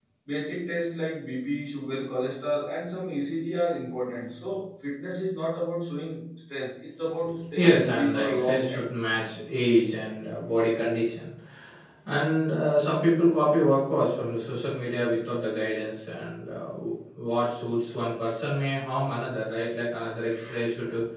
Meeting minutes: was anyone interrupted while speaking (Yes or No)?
Yes